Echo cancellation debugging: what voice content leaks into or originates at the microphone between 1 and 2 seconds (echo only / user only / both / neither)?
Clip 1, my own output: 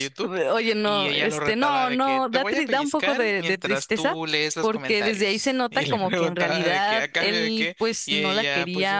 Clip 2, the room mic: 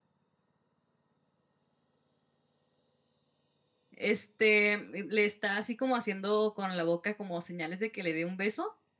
neither